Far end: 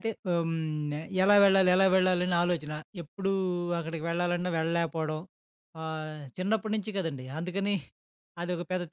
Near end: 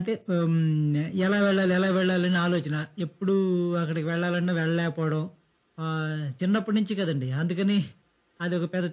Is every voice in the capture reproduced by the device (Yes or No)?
Yes